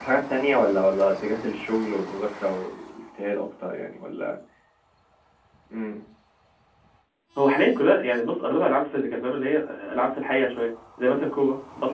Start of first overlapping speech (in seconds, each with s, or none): none